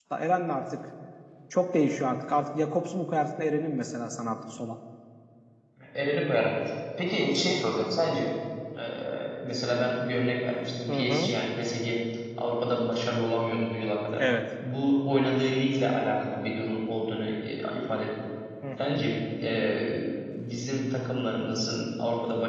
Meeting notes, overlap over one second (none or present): none